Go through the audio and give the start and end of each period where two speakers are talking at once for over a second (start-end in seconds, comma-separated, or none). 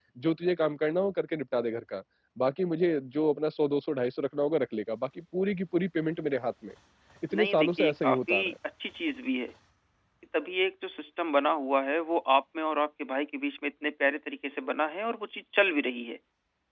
7.3-8.5